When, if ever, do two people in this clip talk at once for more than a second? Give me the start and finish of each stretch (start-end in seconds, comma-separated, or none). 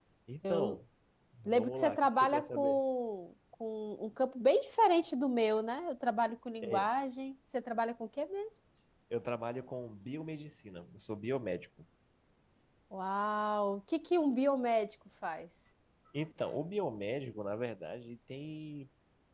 1.4-2.8